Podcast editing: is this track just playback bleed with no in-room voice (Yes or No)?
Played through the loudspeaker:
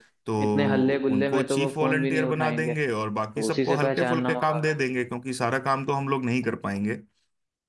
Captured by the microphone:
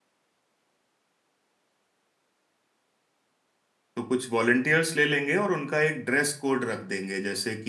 No